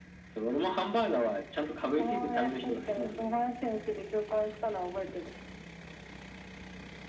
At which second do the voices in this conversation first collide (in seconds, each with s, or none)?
2.0 s